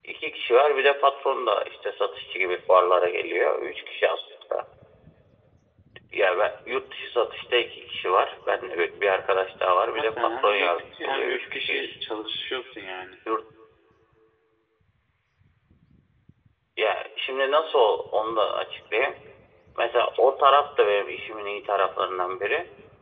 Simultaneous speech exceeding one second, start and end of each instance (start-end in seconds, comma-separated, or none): 9.9-11.9